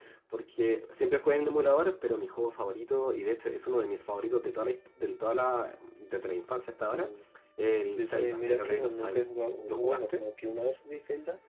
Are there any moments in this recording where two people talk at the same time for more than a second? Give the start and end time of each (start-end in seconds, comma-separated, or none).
8.0-9.2